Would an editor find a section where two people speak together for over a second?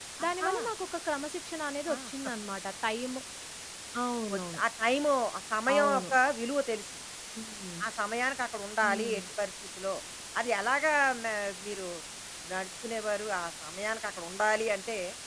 No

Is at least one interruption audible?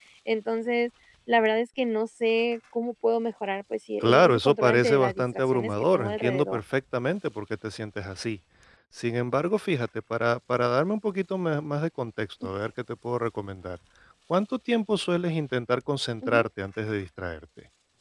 Yes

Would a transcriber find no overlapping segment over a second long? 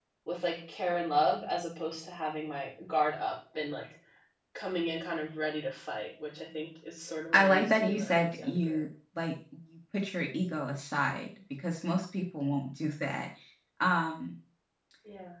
No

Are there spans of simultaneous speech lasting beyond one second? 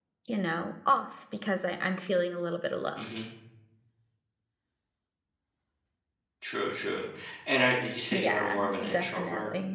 Yes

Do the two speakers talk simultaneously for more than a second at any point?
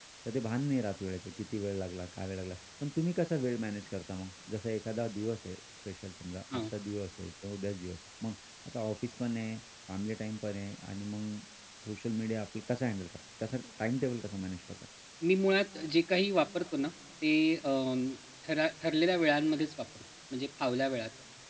No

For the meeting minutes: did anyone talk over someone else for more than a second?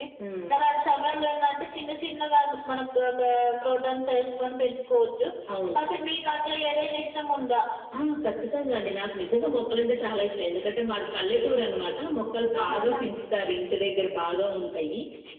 No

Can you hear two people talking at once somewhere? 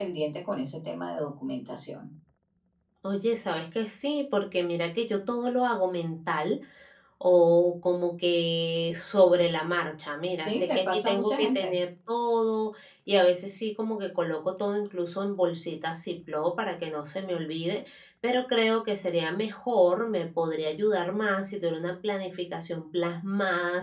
Yes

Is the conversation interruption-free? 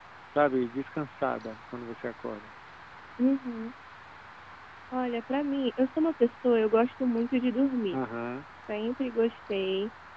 Yes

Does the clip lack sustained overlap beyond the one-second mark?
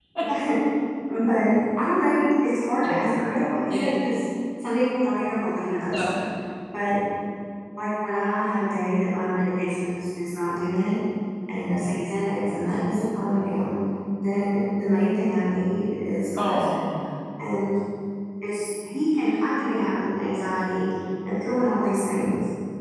Yes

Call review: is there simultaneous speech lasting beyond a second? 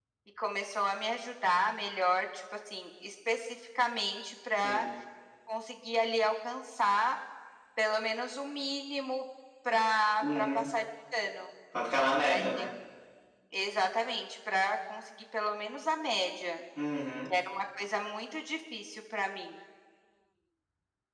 No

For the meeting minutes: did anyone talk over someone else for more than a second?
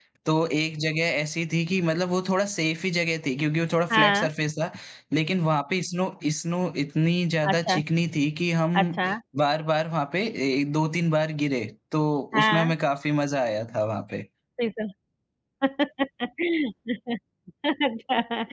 No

